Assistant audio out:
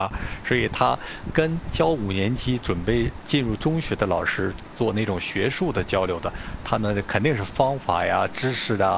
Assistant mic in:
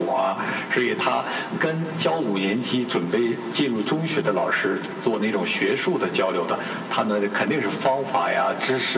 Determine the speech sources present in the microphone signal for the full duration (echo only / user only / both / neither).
echo only